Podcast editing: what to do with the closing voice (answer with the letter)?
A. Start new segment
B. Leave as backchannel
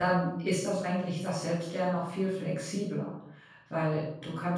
B